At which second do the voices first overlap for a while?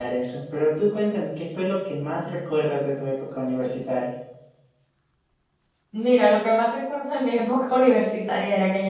none

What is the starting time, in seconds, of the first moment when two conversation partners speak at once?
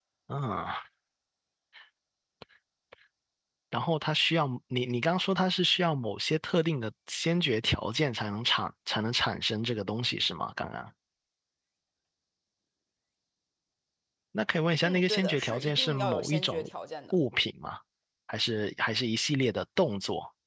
14.8 s

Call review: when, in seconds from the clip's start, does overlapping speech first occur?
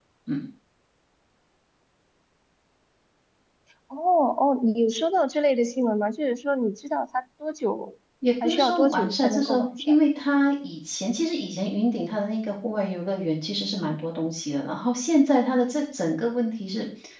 8.4 s

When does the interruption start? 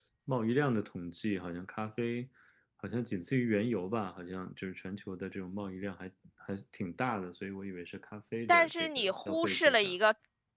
8.5 s

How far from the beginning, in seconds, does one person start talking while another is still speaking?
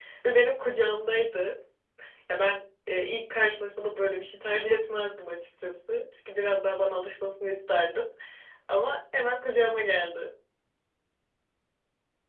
none

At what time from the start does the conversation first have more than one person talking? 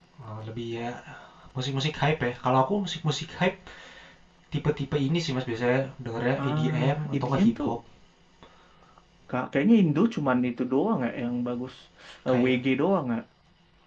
6.4 s

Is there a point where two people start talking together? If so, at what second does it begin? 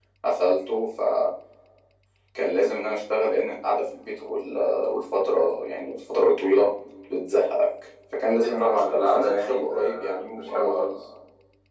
8.4 s

